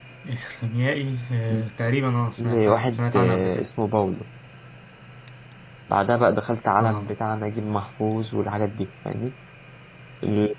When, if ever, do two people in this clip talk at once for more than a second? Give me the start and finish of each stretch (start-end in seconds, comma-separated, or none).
2.4-3.7